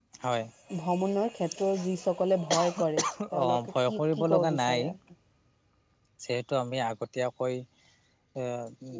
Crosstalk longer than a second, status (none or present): present